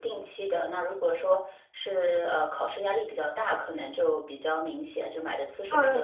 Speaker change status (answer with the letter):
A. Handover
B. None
A